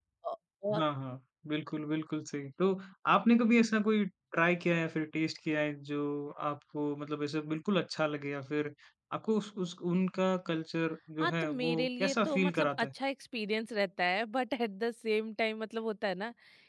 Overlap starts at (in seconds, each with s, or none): 11.2 s